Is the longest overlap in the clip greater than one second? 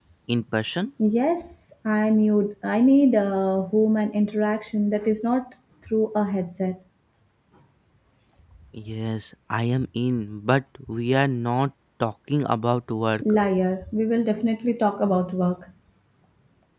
No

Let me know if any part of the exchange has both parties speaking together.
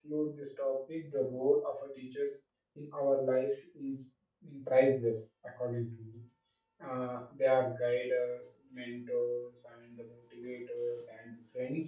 No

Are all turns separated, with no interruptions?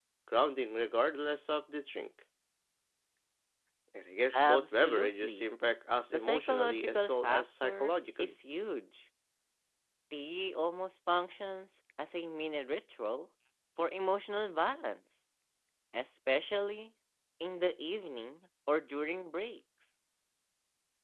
No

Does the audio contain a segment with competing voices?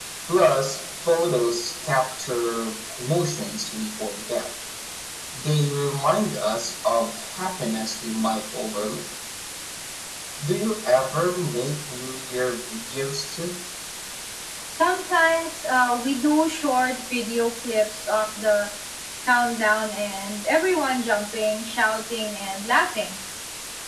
No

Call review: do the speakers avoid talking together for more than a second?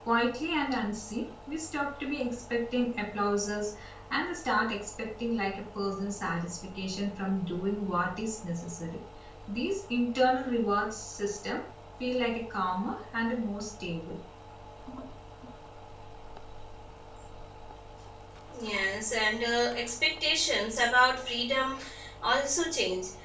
Yes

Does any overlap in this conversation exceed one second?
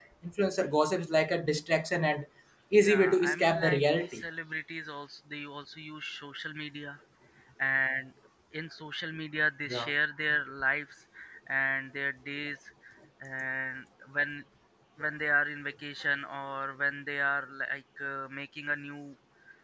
Yes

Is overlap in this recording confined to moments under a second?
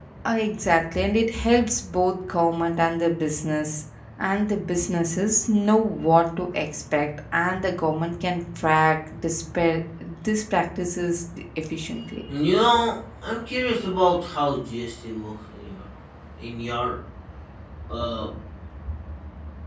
Yes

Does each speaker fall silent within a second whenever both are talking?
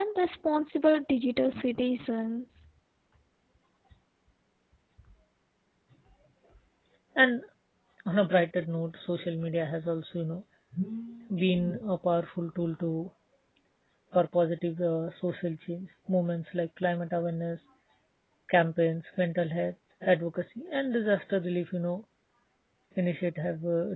Yes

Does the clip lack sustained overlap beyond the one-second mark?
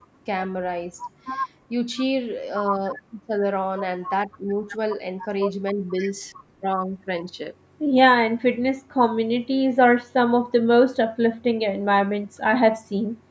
Yes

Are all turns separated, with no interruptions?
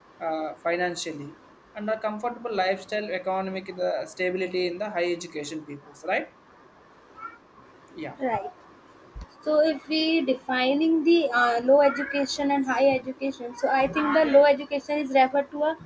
Yes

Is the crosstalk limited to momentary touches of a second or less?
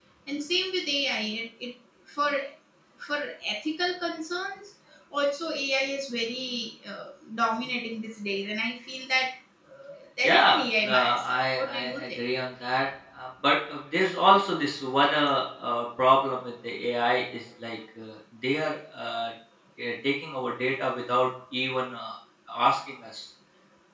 No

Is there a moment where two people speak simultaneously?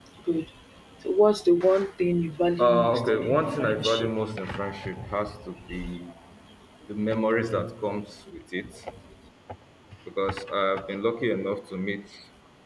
Yes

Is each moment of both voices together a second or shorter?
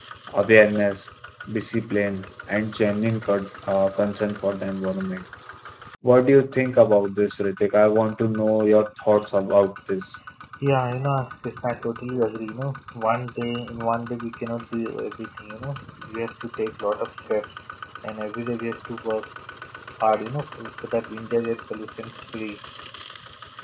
Yes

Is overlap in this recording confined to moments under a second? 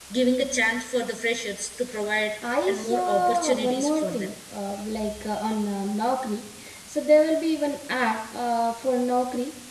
No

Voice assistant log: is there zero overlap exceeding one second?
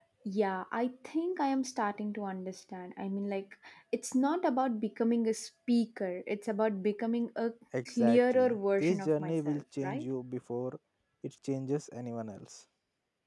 No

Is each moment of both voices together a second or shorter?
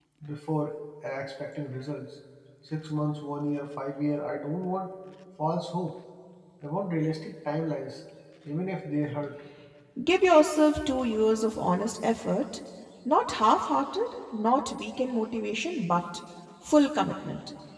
Yes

